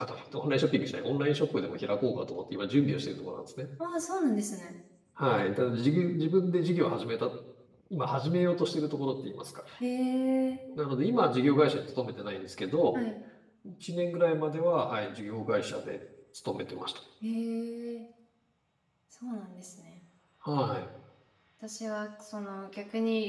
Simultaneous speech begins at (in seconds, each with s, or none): none